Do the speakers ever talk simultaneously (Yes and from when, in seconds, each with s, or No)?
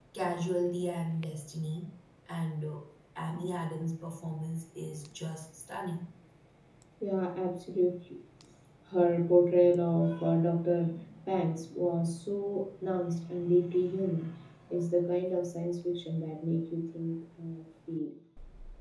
No